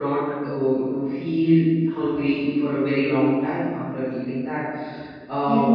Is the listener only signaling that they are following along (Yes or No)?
No